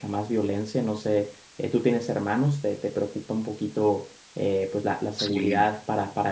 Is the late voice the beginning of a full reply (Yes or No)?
No